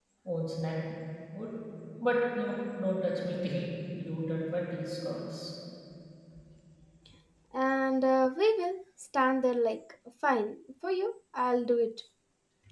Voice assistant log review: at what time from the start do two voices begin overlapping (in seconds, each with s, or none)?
none